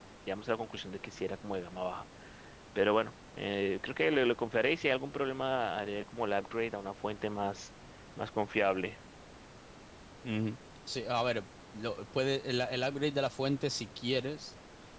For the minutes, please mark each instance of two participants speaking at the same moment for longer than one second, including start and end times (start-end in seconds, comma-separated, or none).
none